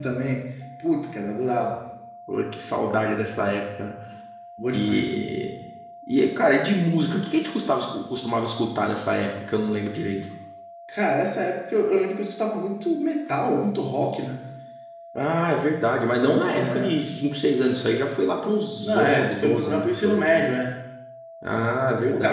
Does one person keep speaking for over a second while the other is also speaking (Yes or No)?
Yes